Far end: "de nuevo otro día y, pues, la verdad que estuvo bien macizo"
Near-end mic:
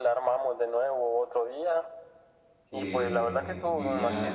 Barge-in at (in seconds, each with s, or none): 2.6 s